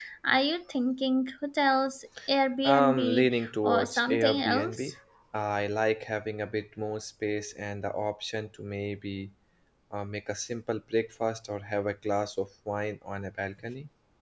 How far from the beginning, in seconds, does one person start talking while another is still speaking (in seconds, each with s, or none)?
2.6 s